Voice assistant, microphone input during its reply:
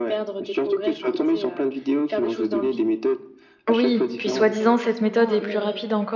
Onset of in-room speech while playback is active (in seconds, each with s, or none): 3.7 s